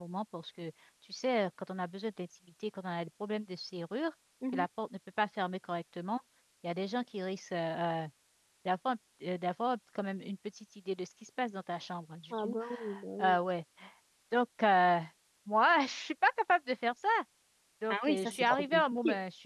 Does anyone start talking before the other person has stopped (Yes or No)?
Yes